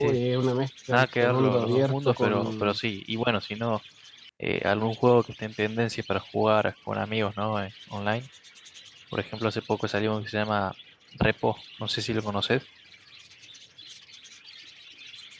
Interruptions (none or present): present